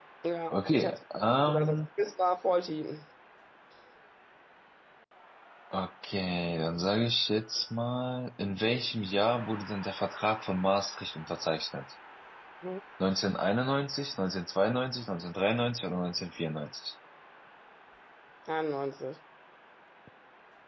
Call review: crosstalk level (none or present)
present